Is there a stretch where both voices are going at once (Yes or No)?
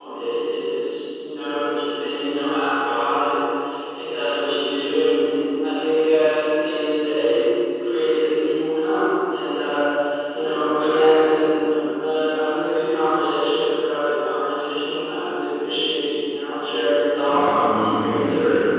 Yes